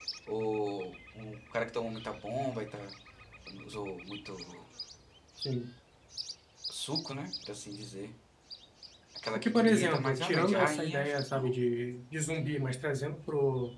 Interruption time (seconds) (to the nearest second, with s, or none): 9 s